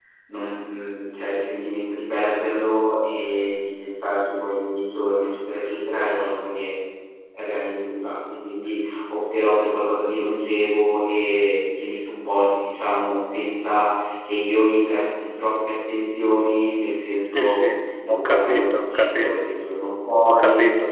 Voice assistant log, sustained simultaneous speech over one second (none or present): present